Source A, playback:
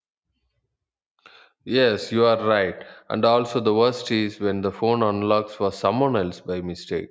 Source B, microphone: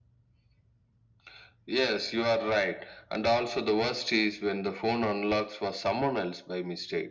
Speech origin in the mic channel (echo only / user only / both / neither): echo only